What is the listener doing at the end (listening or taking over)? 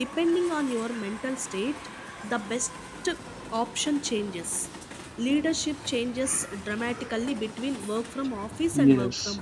taking over